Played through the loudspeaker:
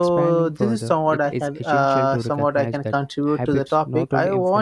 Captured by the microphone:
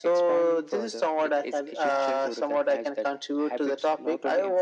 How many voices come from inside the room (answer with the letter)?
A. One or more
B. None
B